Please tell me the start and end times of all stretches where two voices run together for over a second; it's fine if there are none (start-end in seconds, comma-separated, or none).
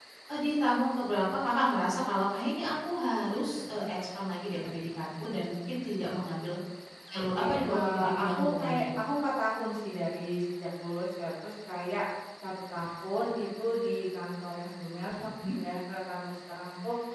7.1-8.8